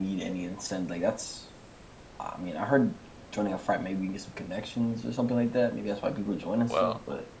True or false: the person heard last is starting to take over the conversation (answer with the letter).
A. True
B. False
A